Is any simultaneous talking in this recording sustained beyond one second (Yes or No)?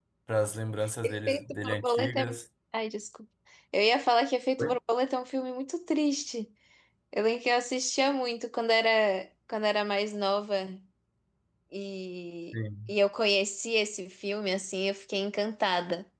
Yes